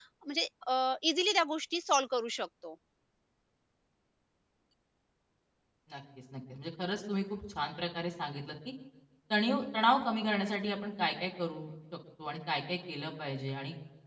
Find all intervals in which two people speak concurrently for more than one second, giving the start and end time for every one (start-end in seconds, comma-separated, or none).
none